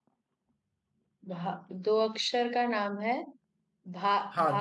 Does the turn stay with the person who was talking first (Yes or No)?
No